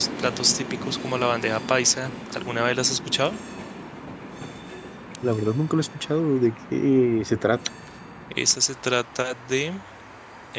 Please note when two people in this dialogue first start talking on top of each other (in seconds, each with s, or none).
none